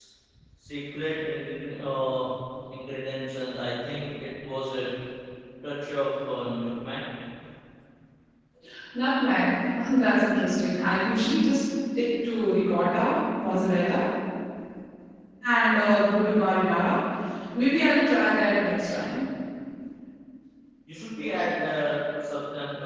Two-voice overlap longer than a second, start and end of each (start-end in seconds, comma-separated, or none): none